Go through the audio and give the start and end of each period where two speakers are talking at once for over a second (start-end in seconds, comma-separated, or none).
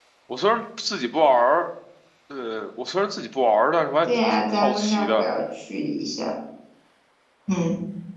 4.1-5.3